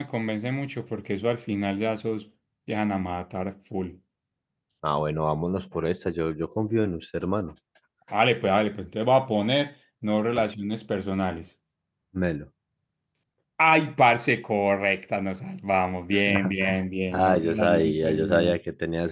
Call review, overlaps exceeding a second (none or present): present